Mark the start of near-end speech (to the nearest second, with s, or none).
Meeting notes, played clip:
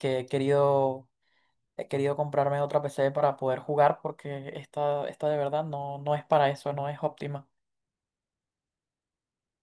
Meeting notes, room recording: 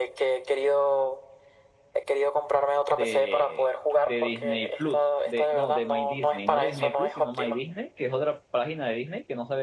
3 s